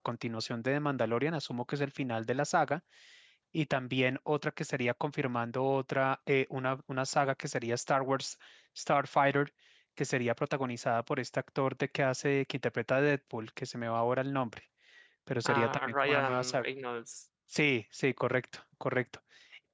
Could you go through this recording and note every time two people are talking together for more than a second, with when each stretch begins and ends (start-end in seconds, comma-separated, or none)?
15.4-16.6